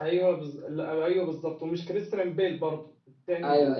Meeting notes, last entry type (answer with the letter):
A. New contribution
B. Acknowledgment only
B